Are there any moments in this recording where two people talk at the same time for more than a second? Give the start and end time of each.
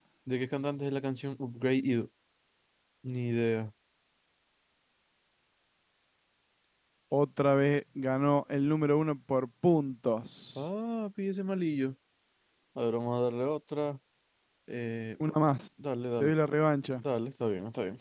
none

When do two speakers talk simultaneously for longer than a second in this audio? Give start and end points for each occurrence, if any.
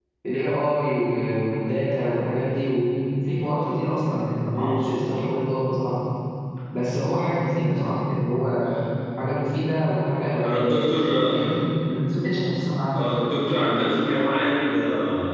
none

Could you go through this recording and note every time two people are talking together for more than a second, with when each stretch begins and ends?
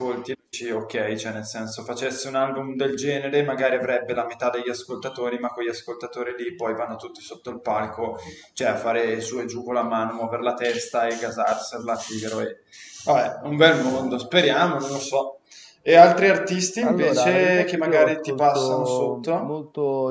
16.8-19.5

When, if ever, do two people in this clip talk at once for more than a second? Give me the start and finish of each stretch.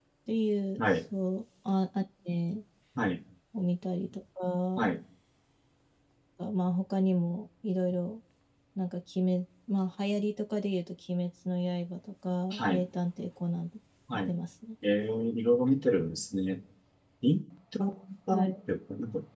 none

